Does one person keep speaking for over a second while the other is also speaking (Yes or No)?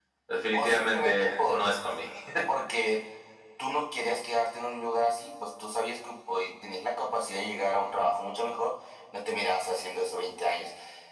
Yes